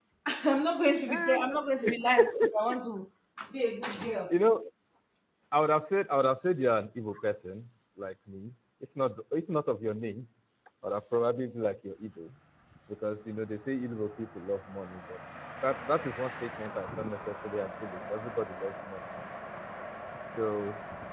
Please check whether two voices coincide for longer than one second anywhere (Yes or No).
No